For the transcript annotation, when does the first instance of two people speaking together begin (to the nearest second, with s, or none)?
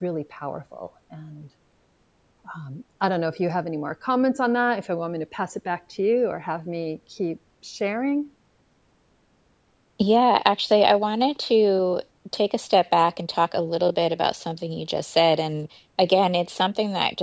none